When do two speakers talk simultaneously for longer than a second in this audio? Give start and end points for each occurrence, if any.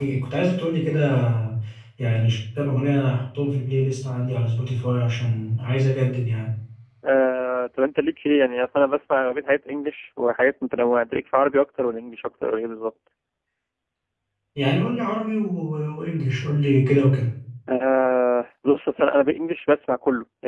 none

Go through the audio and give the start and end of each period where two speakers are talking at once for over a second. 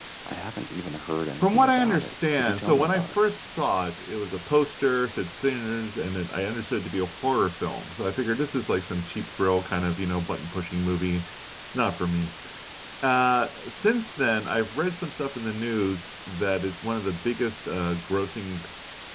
1.4-3.2

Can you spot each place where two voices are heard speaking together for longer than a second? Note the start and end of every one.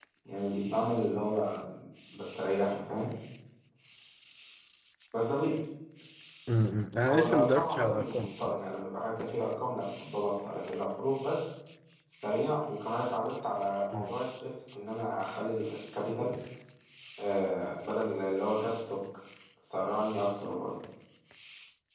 7.1-8.6

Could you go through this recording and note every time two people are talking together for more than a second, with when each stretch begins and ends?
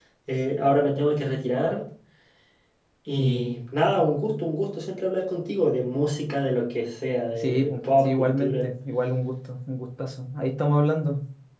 7.4-8.7

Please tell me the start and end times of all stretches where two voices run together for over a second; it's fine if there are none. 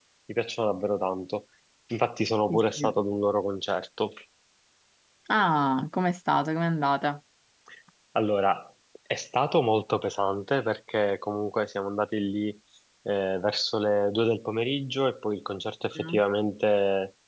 none

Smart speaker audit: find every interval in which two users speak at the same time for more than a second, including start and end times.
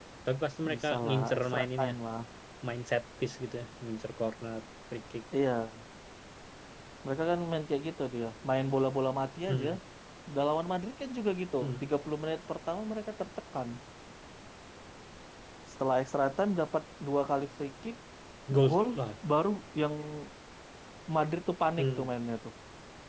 0.7-2.0

